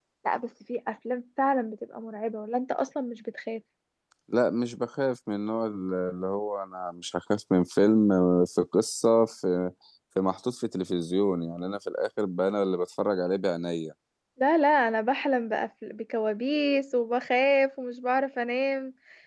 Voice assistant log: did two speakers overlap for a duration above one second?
No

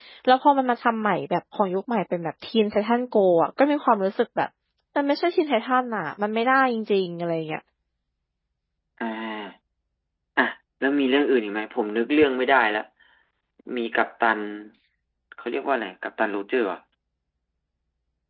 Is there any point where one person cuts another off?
No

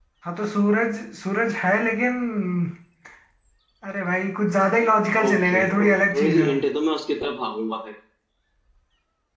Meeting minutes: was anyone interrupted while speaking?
Yes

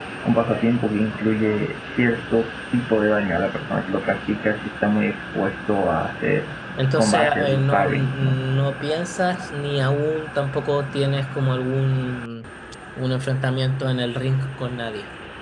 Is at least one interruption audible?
Yes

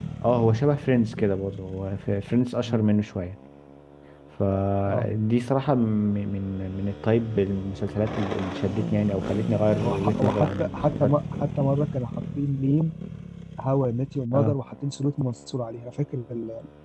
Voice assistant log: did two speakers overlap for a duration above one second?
Yes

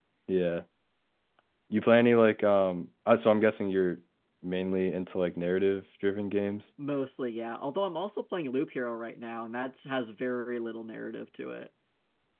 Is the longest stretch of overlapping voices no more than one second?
Yes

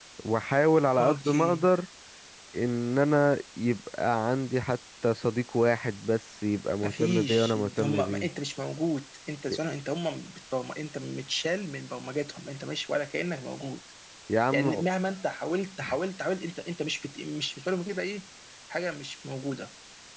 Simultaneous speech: Yes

